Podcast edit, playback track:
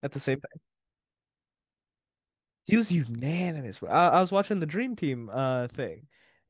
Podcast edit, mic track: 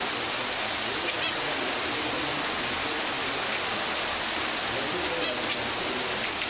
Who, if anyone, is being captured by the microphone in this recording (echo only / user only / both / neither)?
neither